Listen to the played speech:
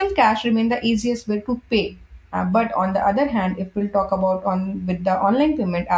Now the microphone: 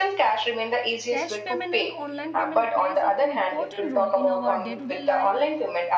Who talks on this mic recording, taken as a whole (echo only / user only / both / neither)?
both